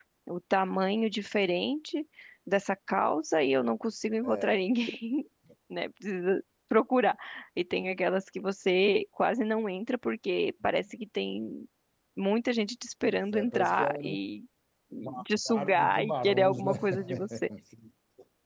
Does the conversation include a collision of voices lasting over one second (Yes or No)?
Yes